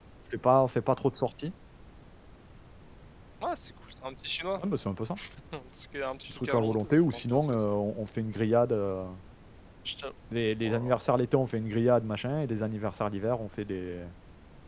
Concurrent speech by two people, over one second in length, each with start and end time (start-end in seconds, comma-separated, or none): 6.3-7.7